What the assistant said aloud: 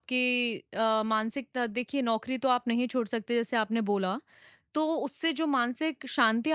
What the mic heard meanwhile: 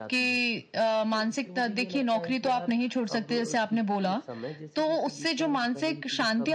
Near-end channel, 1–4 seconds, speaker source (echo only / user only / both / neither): both